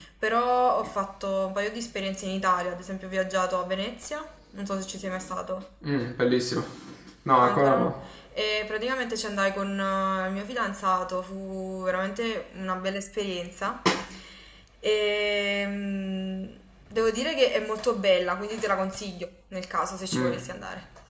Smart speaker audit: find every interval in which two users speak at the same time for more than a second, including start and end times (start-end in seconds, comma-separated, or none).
none